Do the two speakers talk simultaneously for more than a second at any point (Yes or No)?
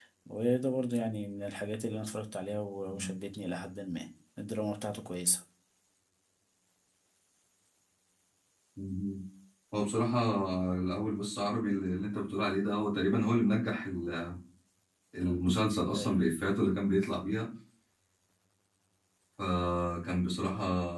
No